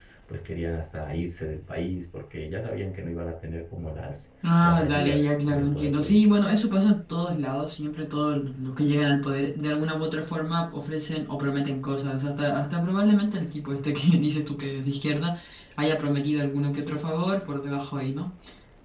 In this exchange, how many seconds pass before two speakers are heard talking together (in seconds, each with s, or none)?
4.4 s